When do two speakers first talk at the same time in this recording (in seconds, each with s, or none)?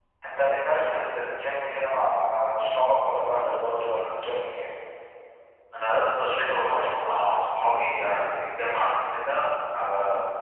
none